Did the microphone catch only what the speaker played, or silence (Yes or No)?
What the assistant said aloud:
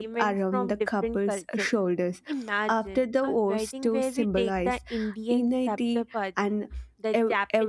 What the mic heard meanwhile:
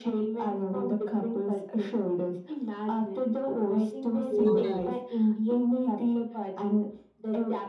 No